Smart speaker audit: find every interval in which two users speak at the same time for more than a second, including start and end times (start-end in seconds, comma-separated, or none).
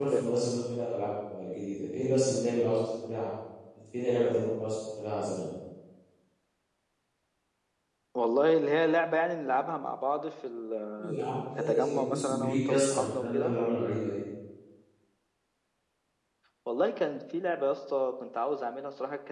11.0-13.6